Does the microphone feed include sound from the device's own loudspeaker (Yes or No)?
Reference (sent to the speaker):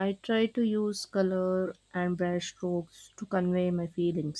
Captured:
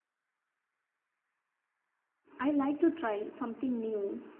No